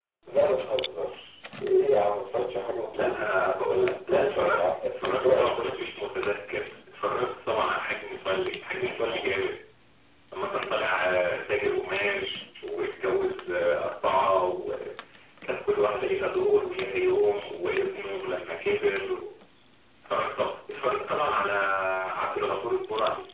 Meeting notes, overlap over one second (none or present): present